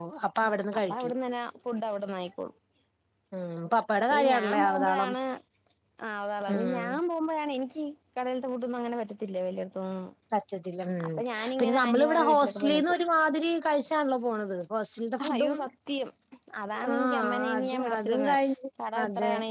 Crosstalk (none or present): present